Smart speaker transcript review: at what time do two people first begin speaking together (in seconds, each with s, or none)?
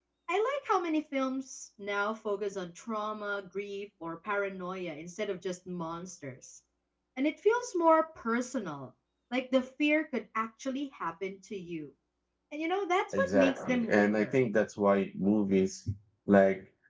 13.1 s